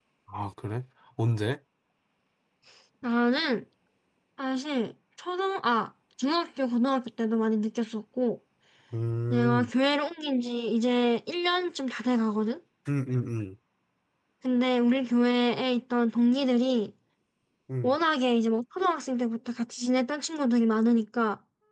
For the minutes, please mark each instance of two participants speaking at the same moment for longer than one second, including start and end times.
none

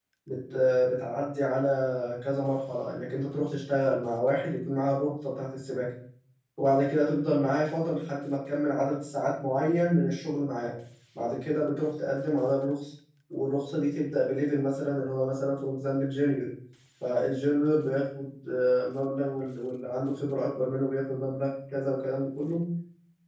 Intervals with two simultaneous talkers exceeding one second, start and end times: none

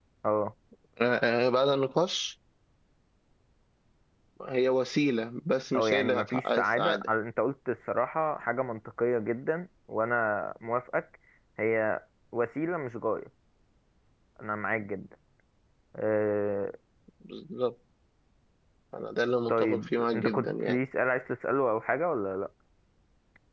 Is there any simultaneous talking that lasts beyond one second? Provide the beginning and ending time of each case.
5.8-7.1, 19.5-20.8

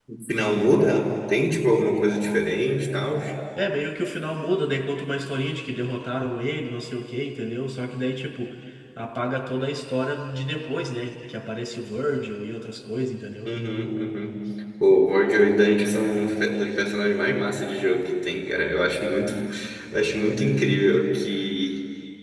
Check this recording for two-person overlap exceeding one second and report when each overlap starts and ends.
none

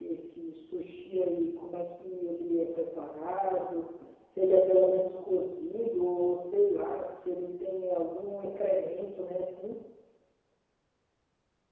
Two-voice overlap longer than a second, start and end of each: none

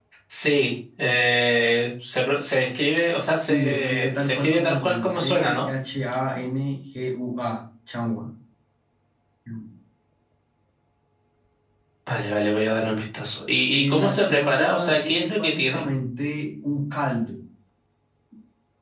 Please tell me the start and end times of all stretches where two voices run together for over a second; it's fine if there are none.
3.4-5.7, 13.7-15.8

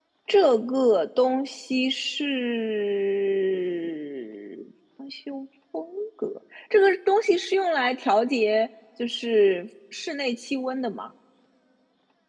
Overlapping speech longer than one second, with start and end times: none

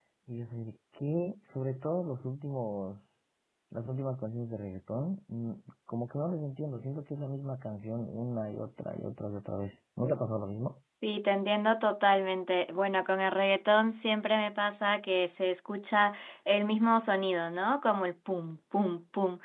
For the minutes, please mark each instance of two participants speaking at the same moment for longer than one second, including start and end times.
none

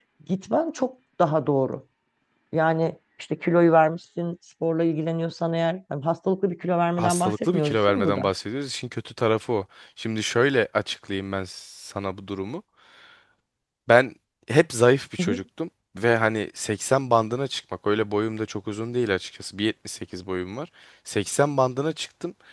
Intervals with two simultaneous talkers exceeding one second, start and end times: 7.0-8.3

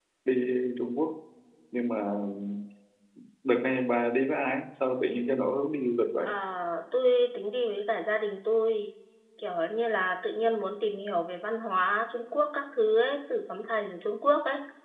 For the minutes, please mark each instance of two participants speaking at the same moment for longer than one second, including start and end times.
none

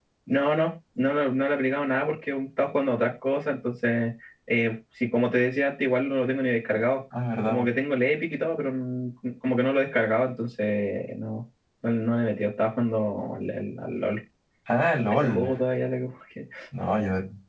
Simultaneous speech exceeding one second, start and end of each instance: none

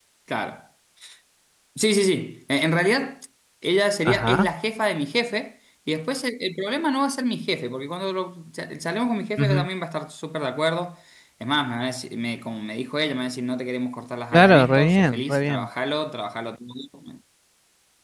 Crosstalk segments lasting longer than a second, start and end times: 14.3-15.7

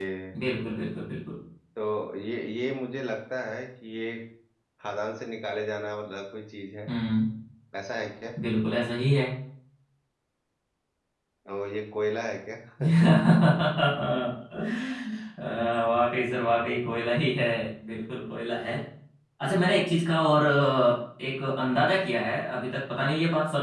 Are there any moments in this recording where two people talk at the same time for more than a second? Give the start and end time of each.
none

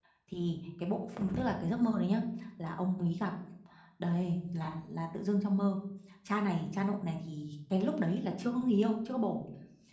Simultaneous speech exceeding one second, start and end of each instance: none

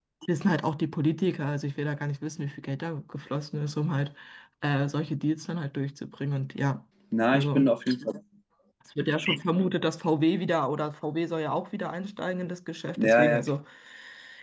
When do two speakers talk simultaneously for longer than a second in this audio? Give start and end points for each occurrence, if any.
none

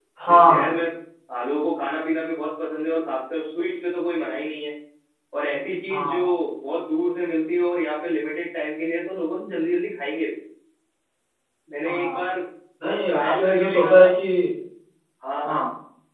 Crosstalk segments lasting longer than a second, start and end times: 12.8-14.1

